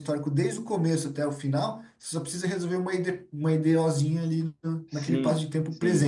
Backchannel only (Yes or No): No